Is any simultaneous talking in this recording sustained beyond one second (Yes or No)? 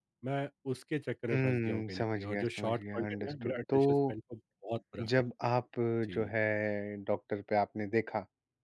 Yes